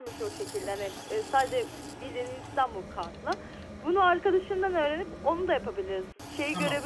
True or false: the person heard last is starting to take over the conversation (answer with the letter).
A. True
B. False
B